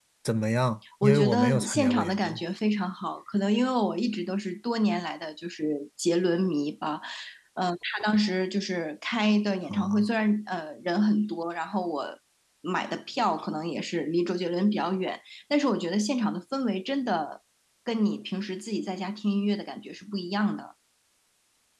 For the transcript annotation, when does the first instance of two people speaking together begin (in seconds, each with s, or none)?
1.0 s